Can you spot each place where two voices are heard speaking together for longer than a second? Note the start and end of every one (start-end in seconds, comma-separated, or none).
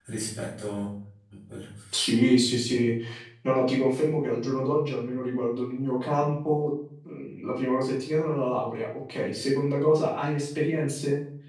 none